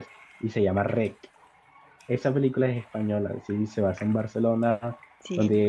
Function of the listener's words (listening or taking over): listening